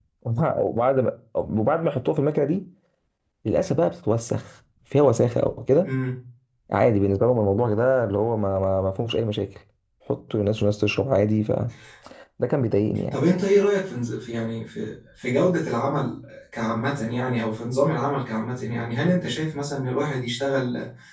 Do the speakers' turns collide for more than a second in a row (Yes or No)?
No